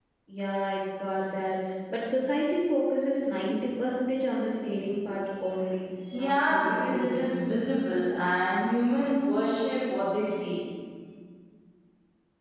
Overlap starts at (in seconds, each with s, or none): 6.1 s